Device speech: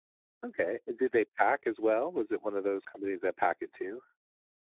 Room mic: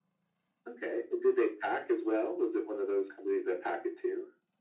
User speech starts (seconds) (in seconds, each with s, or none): none